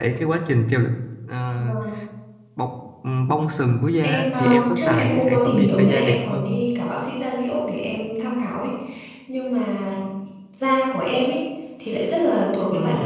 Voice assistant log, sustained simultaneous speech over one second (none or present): present